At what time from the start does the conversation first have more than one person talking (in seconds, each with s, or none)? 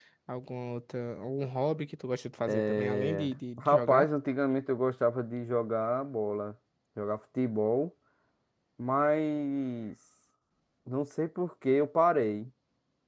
2.5 s